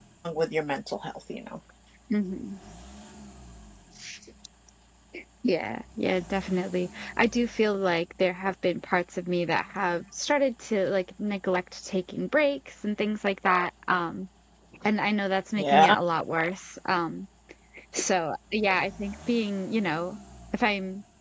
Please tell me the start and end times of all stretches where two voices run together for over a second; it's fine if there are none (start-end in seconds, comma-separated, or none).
none